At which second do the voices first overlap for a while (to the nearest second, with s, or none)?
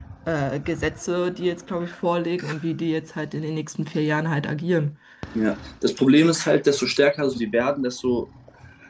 none